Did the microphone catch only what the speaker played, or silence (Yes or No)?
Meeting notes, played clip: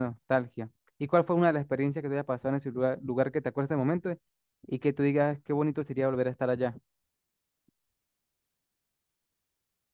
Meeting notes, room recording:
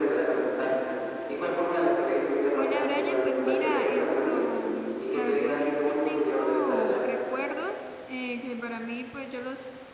No